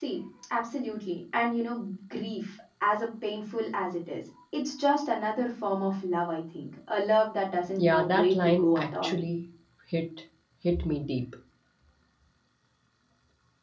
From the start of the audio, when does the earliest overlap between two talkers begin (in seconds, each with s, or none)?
7.8 s